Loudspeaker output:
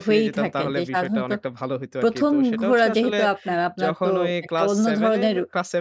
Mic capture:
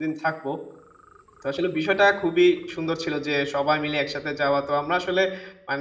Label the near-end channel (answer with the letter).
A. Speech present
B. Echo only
A